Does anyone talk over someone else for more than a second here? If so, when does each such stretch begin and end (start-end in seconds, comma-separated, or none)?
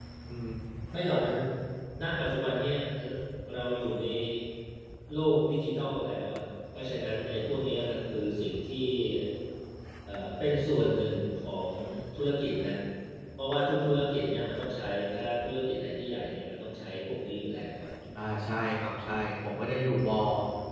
none